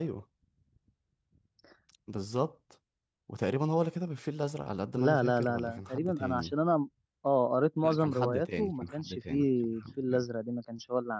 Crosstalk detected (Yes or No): Yes